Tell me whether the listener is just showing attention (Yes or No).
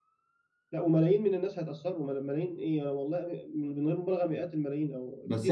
No